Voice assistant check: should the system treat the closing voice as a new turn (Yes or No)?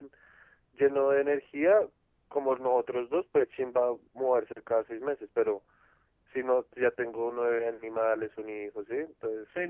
Yes